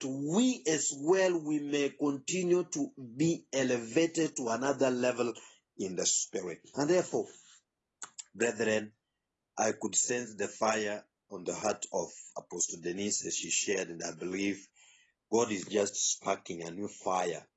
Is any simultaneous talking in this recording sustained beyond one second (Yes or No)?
No